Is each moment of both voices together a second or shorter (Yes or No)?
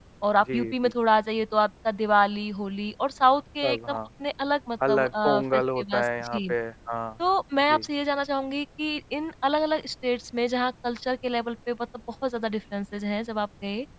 No